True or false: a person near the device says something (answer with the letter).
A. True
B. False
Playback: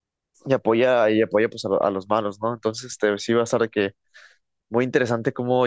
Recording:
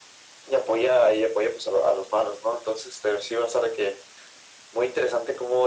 B